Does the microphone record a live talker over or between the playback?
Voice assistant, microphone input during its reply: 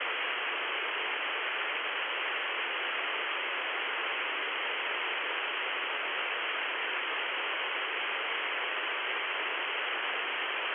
No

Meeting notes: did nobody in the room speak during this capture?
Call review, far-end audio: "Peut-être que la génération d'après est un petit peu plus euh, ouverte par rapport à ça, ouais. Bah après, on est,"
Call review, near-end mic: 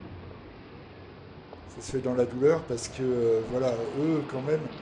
No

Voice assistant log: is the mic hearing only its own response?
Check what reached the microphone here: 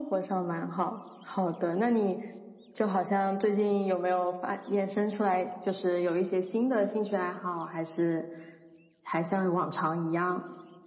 Yes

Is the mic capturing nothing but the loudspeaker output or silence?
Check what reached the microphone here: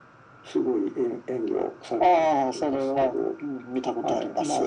Yes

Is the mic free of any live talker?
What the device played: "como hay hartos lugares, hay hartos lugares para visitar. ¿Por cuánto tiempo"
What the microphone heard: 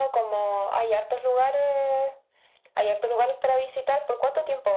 Yes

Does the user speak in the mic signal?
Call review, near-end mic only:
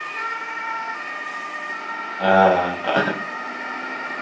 Yes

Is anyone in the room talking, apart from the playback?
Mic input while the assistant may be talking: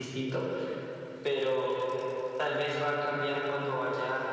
Yes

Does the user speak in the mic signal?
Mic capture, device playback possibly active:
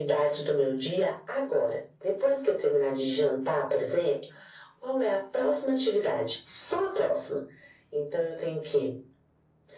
No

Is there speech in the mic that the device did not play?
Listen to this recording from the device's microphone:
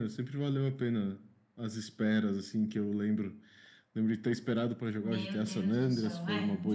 Yes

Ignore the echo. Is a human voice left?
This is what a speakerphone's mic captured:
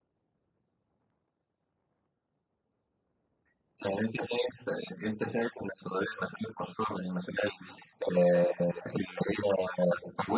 No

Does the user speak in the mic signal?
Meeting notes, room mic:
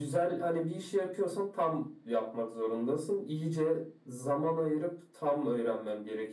No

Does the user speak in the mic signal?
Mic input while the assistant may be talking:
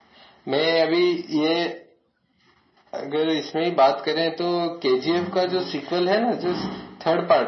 No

